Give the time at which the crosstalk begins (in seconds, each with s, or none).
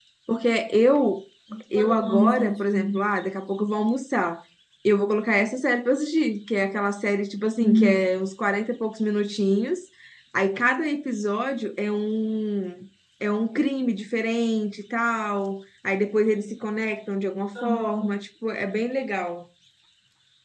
1.7 s